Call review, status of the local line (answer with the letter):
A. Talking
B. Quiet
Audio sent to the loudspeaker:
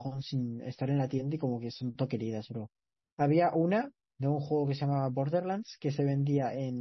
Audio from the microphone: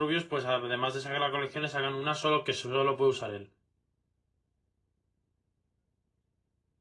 A